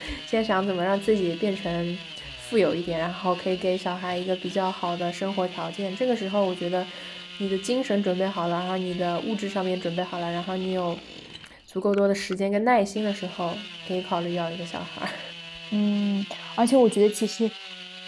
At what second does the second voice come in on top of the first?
none

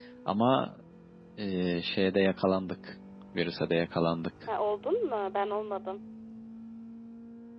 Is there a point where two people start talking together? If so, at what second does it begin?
none

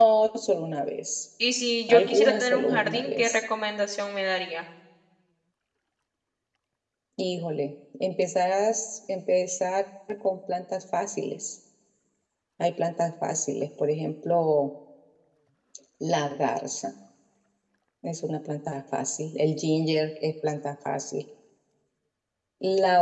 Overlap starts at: 1.9 s

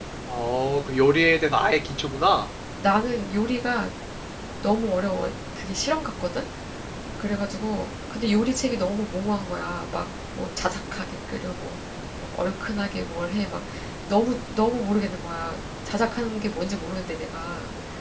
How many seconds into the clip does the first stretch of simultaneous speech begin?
none

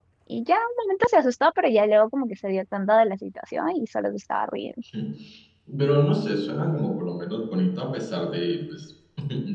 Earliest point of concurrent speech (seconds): none

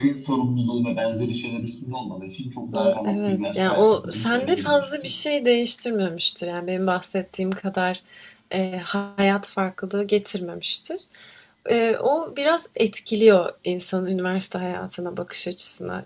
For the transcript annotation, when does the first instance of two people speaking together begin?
2.7 s

